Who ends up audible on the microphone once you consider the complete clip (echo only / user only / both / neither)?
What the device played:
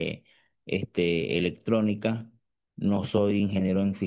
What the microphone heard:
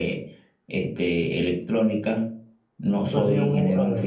both